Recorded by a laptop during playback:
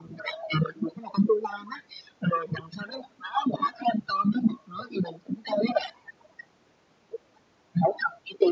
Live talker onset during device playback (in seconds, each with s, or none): none